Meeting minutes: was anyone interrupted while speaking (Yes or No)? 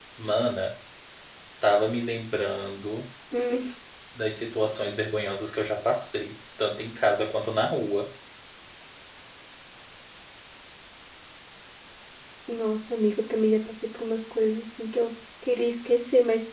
No